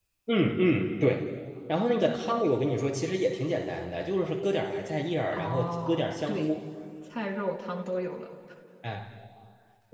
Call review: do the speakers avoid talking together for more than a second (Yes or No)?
No